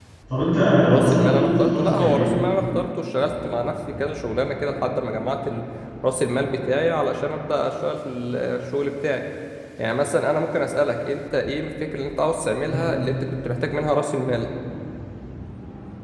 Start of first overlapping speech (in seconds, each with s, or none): 1.0 s